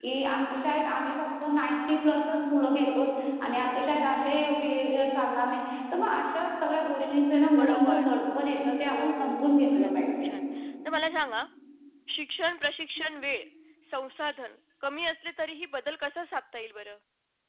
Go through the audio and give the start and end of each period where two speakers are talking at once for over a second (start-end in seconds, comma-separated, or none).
8.9-10.3